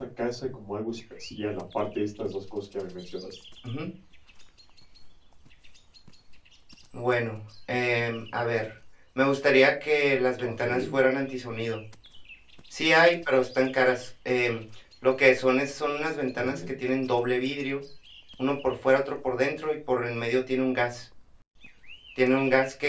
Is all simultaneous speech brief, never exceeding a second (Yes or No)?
Yes